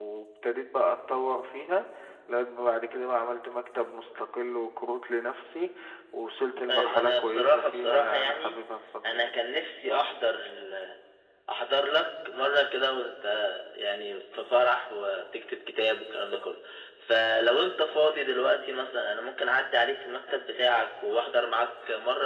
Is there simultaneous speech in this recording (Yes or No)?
Yes